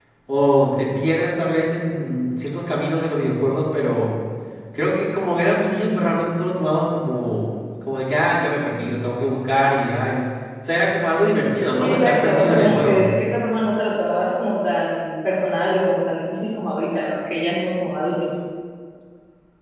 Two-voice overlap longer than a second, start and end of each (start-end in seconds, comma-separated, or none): 11.8-13.1